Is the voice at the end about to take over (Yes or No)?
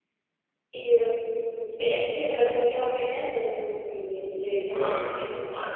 Yes